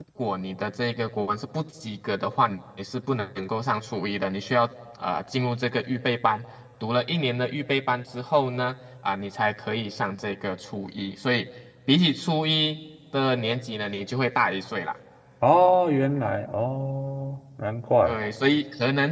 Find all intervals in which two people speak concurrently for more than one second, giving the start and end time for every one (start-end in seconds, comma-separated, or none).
none